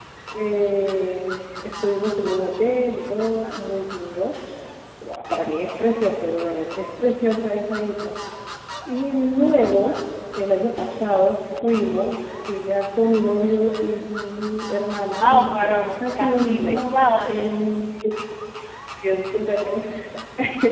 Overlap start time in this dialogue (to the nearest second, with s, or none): 15 s